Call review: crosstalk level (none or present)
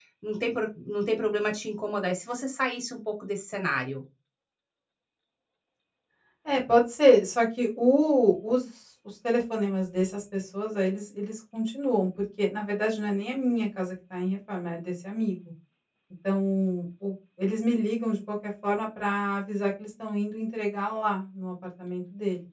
none